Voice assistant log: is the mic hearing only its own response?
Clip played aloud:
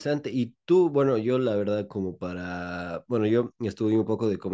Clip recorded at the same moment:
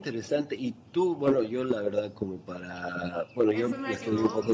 No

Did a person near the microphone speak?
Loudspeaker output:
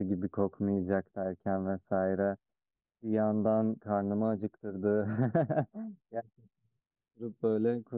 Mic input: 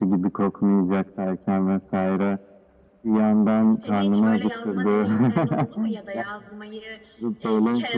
Yes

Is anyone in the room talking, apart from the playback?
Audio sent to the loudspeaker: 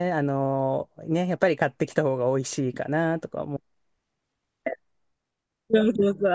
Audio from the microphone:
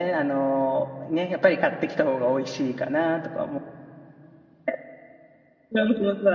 No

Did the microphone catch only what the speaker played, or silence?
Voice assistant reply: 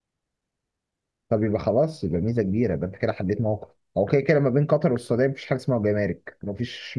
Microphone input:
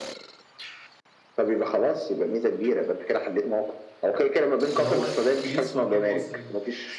No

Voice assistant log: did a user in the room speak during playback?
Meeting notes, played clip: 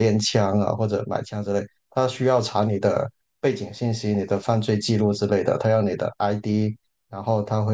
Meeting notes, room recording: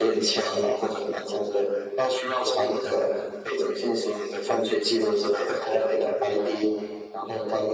No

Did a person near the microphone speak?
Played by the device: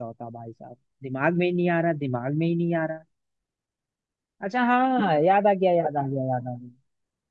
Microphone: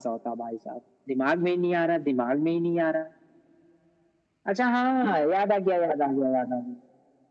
No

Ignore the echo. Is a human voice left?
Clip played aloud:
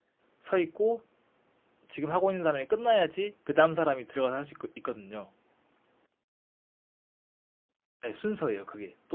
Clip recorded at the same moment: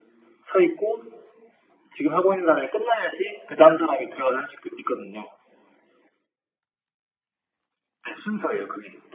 No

